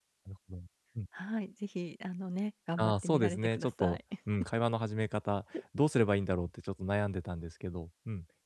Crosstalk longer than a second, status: present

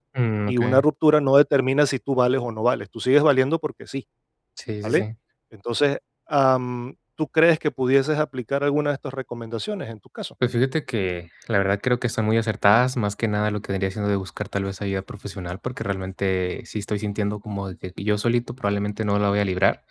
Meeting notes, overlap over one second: none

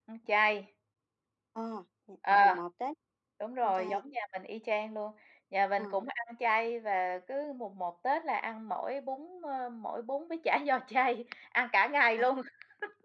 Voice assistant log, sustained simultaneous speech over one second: none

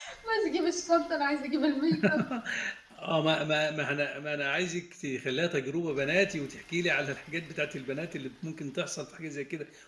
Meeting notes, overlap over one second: none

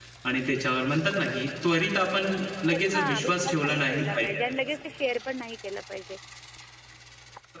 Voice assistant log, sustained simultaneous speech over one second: present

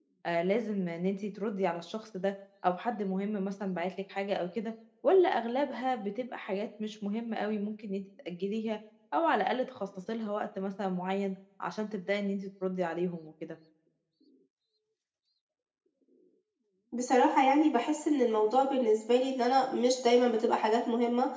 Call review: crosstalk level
none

